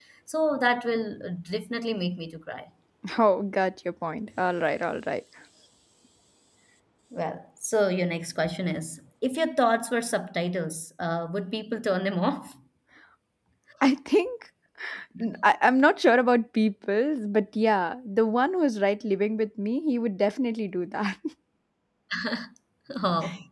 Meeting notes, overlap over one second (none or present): none